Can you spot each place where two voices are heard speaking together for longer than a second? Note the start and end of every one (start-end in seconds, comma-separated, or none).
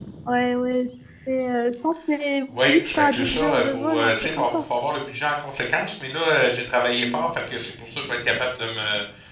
2.7-4.7